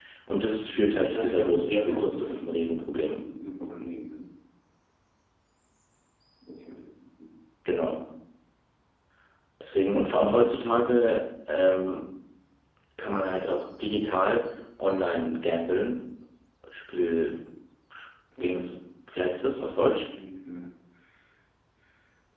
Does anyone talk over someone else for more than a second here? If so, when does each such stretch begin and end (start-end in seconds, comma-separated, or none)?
0.7-2.4